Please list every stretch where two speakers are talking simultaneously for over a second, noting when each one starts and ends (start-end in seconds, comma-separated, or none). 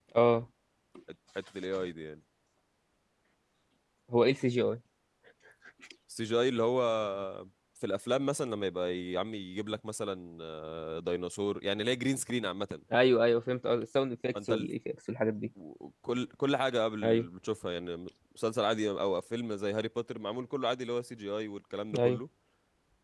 none